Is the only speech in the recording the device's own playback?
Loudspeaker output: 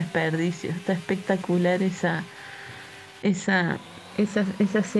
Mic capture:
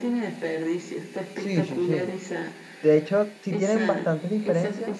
No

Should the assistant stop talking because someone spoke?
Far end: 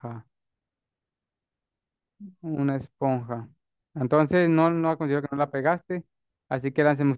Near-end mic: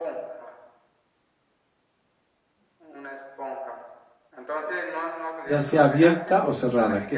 Yes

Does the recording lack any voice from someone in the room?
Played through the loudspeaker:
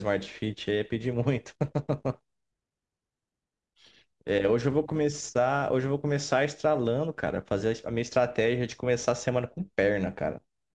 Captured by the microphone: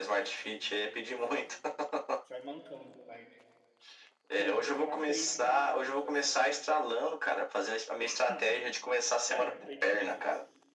No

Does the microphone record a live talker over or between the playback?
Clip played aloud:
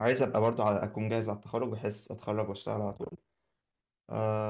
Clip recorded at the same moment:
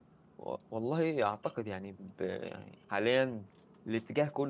Yes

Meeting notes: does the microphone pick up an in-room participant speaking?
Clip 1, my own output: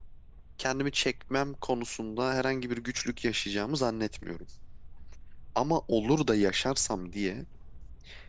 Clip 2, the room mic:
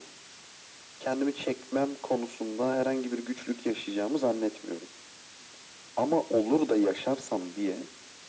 No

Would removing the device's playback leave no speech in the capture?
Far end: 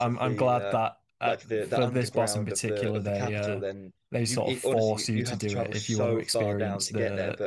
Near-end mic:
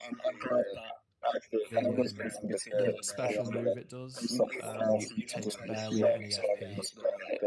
No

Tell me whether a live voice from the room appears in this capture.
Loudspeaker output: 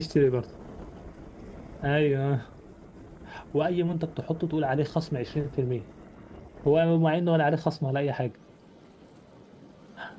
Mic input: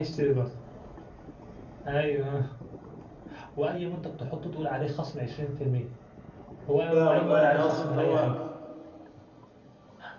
Yes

